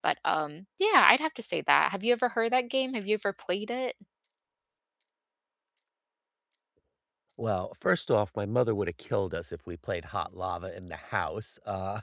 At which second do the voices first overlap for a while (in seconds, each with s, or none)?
none